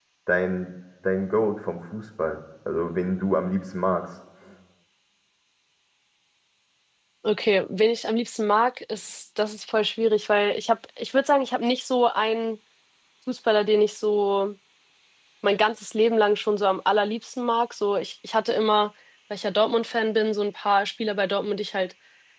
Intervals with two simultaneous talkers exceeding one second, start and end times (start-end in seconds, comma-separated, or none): none